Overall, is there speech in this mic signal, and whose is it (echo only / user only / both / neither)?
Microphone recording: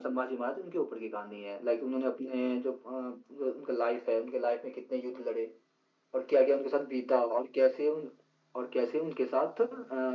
echo only